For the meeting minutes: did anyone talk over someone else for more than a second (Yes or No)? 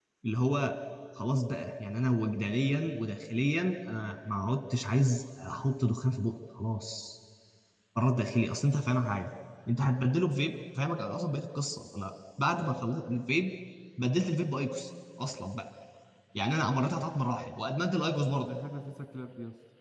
No